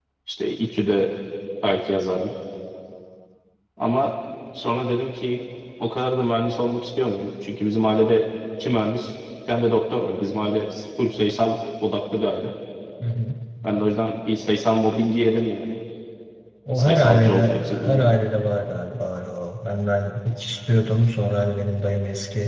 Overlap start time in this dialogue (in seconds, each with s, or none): 16.7 s